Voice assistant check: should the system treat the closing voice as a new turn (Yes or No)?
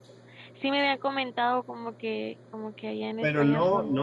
Yes